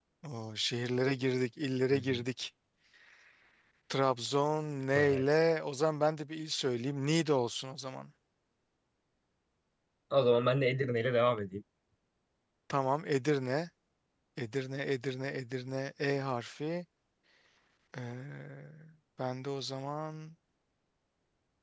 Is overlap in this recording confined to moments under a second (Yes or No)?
Yes